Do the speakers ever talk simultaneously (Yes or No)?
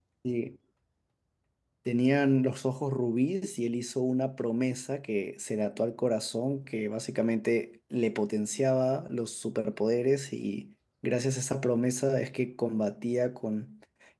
No